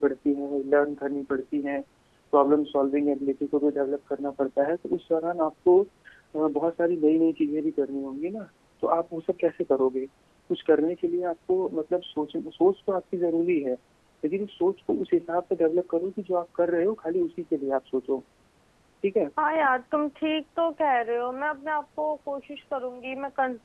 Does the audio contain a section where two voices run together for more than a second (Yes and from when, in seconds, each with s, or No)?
No